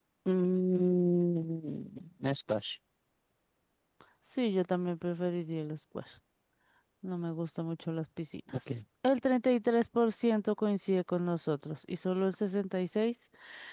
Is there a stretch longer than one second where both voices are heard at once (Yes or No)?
No